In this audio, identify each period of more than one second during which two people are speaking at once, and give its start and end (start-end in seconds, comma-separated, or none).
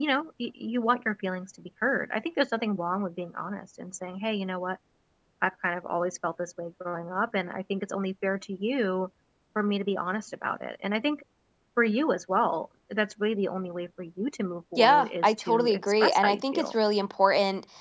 14.8-16.8